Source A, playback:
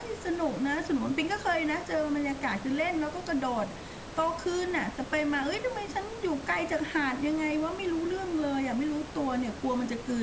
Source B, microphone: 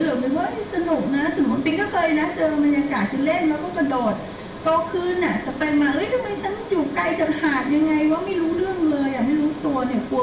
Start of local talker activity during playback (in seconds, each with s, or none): none